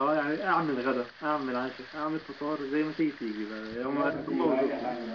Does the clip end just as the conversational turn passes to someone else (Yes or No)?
Yes